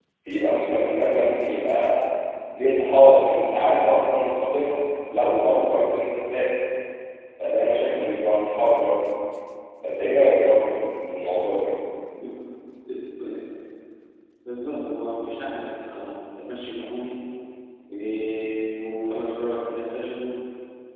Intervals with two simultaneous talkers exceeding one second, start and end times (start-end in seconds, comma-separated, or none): none